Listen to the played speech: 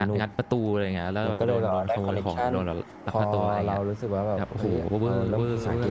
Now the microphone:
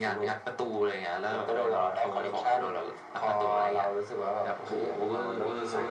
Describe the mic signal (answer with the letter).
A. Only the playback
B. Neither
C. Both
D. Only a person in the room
A